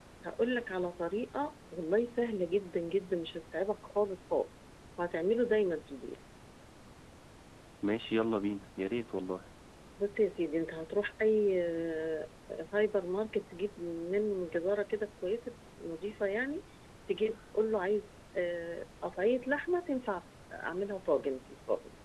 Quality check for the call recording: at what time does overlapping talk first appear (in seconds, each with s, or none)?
none